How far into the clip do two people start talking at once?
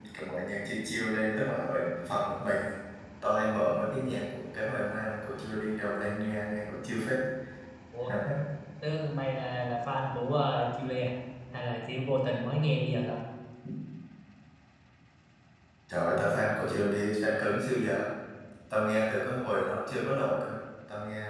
none

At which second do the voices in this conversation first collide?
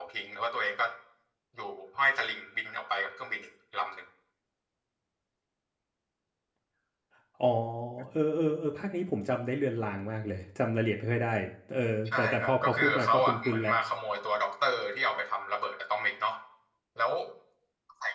12.1 s

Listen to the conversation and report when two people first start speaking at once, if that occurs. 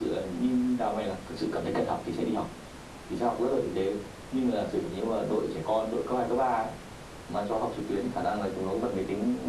none

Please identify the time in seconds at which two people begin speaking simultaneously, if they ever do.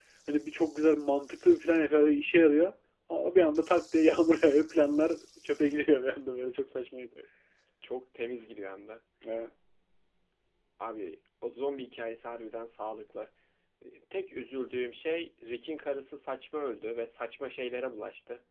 none

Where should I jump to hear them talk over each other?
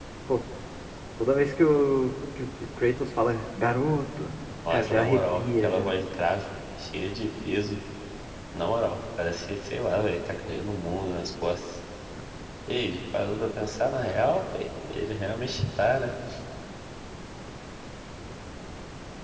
4.6 s

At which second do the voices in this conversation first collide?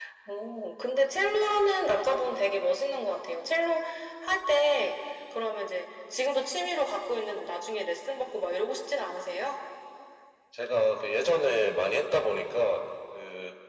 none

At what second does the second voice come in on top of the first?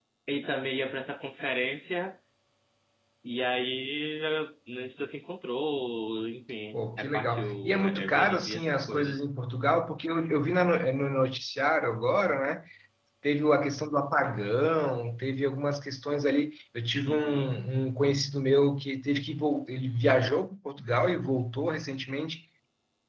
6.7 s

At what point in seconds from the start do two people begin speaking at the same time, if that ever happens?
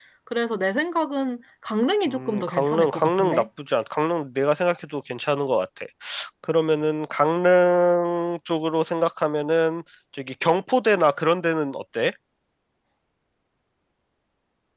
2.1 s

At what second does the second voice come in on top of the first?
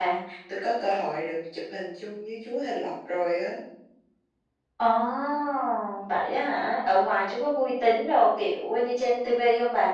none

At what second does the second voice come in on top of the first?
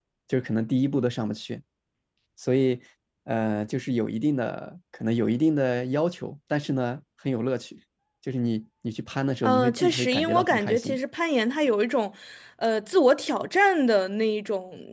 9.4 s

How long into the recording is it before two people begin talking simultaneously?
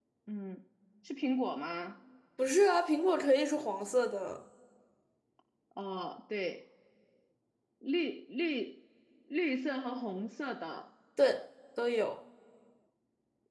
none

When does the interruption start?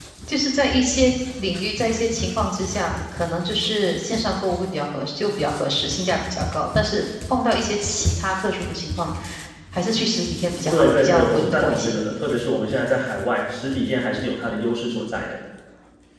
10.7 s

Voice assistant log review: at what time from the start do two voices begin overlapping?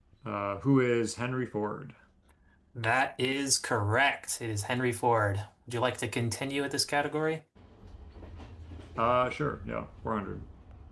none

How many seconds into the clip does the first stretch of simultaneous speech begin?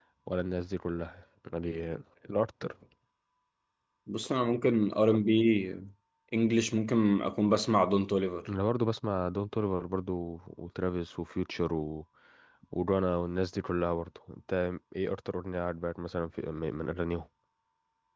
none

